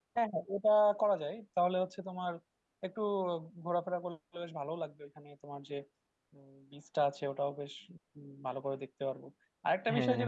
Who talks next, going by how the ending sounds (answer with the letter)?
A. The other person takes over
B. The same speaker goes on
B